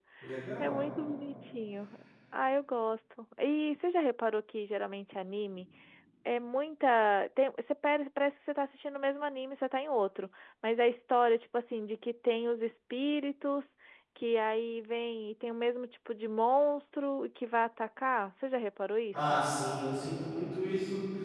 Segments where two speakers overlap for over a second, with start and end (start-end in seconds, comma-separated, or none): none